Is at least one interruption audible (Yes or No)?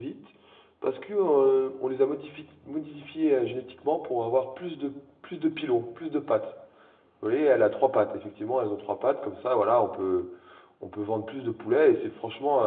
No